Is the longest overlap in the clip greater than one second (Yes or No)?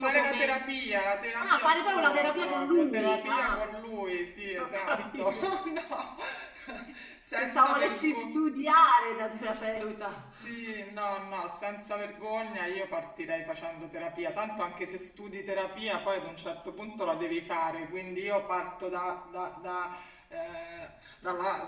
Yes